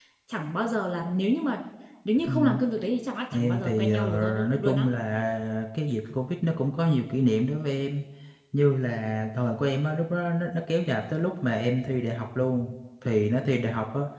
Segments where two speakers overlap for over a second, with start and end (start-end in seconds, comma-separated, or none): 3.3-4.8